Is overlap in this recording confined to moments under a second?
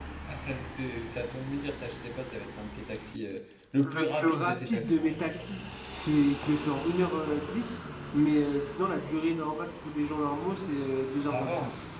No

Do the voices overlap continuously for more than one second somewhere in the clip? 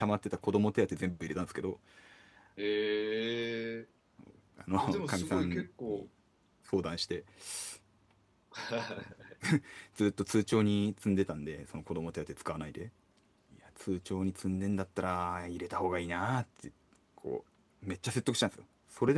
Yes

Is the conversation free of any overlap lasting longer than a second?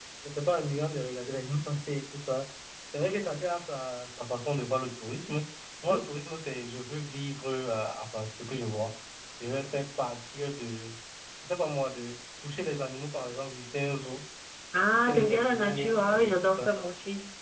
No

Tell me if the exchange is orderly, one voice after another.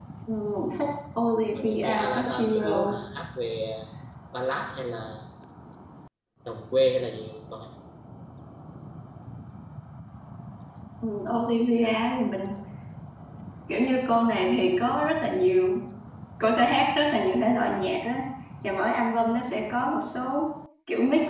No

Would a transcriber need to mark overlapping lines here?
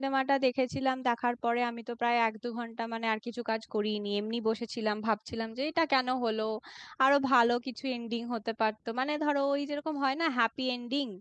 No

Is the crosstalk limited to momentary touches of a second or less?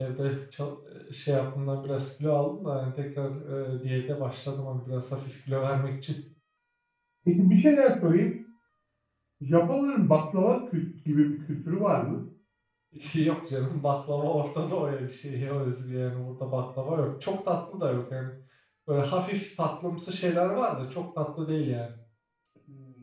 Yes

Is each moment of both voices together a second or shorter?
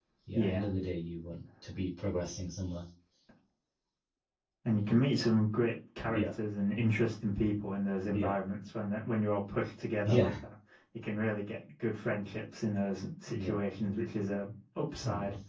Yes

